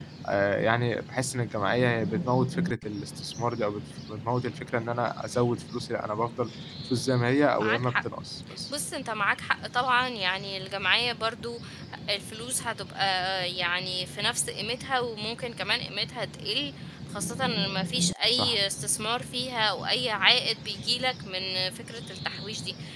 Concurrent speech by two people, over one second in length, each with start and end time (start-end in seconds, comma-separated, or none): none